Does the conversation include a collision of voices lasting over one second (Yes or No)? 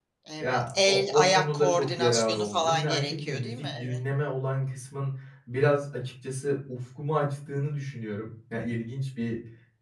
Yes